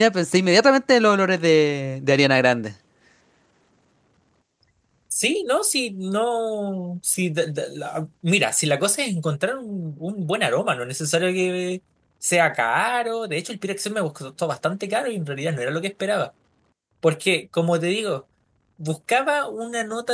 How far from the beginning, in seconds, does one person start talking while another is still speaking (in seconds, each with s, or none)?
none